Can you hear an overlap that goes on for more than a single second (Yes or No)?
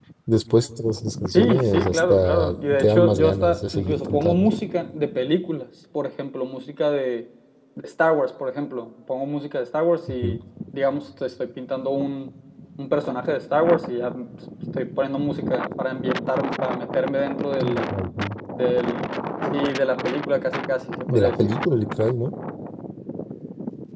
Yes